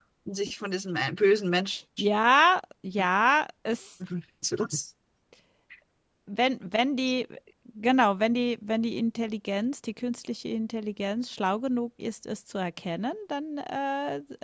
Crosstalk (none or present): none